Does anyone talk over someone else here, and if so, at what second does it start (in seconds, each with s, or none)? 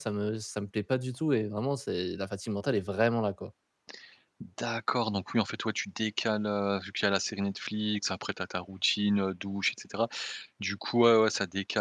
none